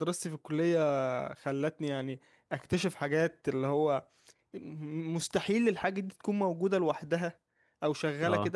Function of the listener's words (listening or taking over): listening